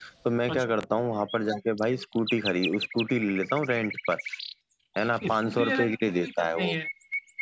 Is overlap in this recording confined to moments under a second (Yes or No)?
No